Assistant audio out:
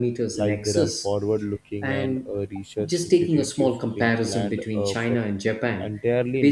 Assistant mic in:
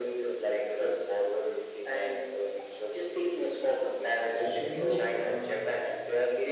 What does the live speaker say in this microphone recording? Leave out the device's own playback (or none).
especially uh,